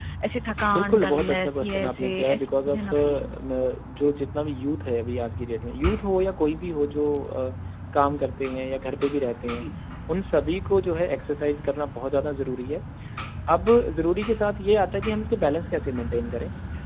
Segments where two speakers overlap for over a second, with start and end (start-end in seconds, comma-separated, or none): 0.7-3.4